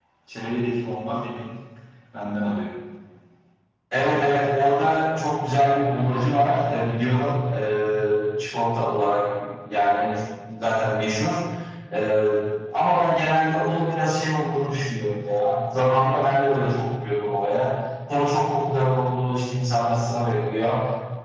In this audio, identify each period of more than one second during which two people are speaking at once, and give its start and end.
none

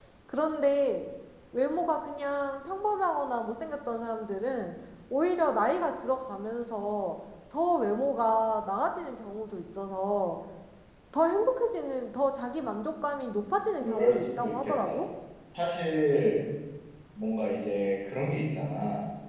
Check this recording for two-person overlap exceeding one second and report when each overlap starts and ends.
13.8-15.0

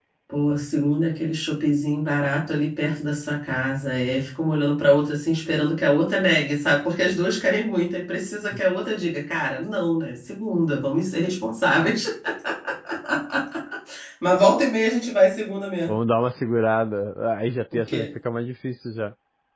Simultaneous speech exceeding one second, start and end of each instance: none

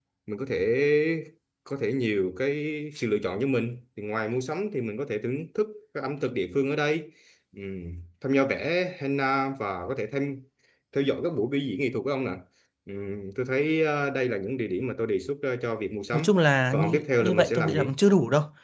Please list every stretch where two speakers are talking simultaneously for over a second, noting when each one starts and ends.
16.7-17.9

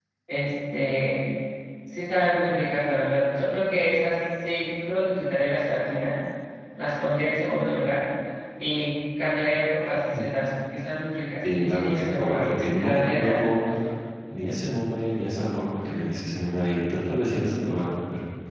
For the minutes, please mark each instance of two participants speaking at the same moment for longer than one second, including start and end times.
11.6-13.6

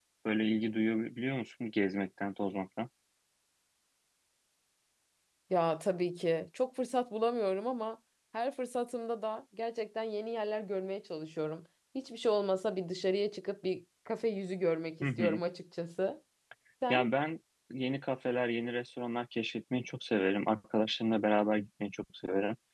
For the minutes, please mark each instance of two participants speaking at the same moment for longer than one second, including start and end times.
none

